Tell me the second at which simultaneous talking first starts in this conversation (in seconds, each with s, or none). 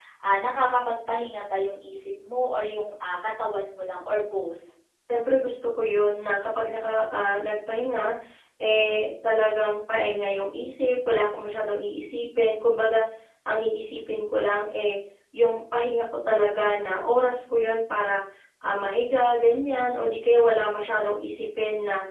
none